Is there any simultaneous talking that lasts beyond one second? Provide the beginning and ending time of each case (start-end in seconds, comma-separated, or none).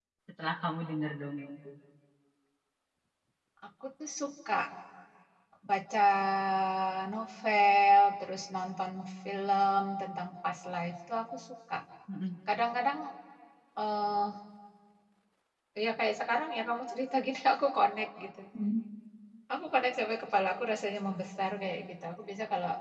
none